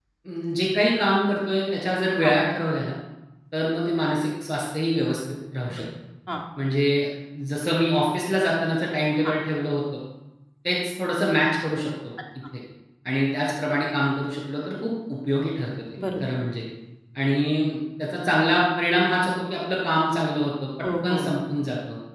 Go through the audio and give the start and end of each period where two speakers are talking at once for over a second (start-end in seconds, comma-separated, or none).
none